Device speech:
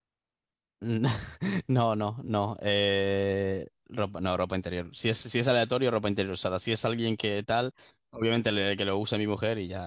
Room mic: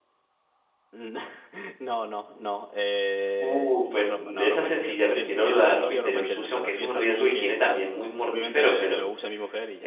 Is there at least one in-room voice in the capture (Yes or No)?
Yes